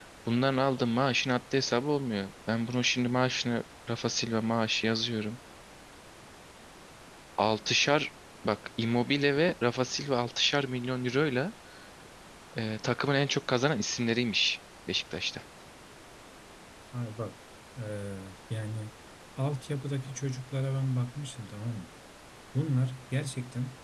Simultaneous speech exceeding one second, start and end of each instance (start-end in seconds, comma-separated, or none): none